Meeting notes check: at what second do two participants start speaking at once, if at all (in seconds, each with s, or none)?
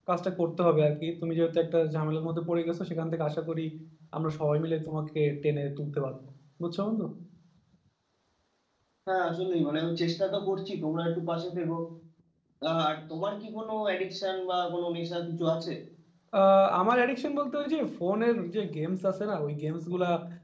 none